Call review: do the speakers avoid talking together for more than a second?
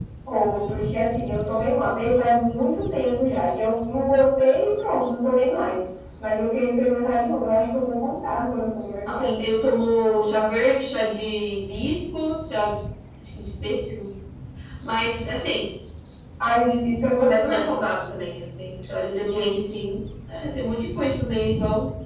Yes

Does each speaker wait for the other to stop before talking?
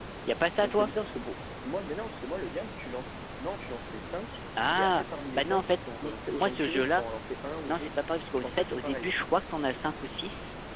No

